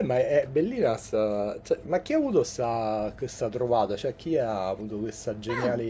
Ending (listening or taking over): taking over